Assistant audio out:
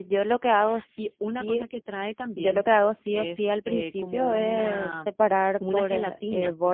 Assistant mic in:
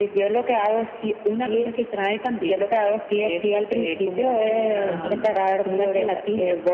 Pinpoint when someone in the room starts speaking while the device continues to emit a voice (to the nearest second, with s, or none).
5 s